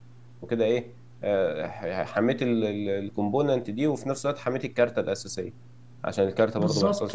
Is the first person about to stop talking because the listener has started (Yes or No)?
Yes